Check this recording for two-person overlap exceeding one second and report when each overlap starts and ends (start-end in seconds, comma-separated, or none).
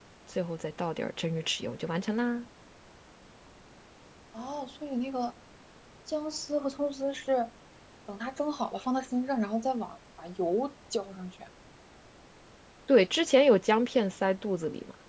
none